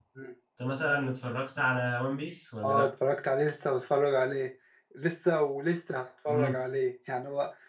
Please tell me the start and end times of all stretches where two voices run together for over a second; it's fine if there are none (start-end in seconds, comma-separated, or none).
none